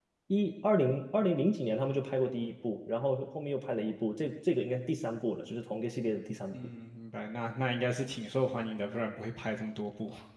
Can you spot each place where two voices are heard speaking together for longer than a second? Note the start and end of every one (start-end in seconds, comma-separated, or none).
none